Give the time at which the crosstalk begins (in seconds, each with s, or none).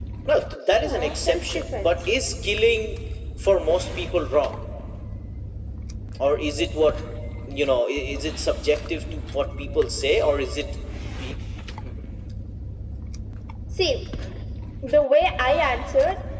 0.7 s